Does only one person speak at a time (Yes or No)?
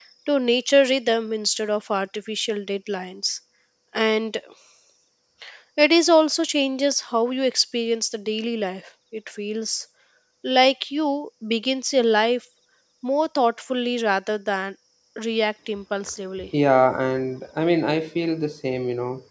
Yes